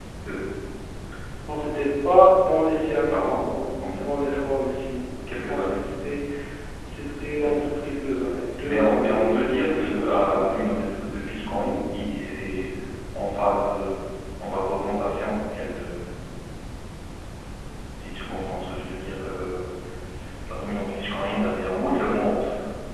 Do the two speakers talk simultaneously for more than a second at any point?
Yes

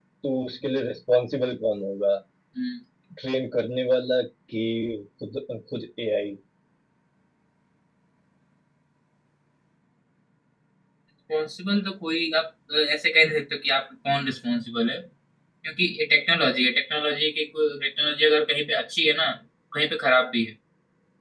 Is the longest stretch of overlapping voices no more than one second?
Yes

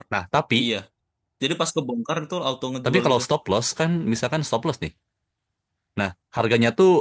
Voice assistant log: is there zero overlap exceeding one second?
Yes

